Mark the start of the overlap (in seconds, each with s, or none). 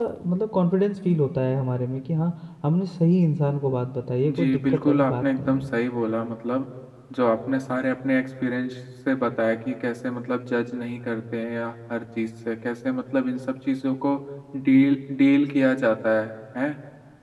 4.3 s